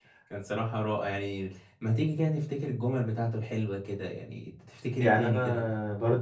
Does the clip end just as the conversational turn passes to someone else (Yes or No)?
Yes